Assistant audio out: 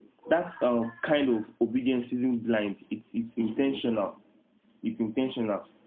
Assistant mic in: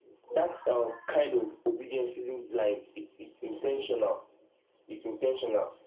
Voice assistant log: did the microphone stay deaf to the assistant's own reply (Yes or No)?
No